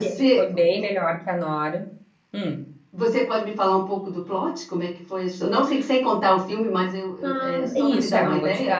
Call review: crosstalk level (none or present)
present